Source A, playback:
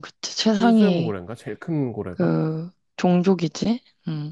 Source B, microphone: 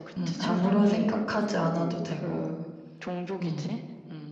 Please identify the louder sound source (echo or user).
user